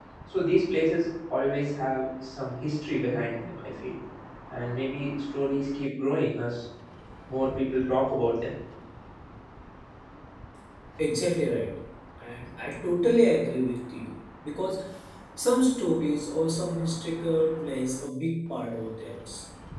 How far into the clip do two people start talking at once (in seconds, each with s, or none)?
none